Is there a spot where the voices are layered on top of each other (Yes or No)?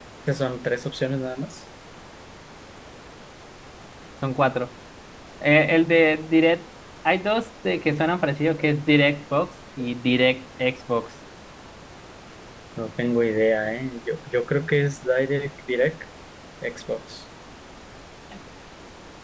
No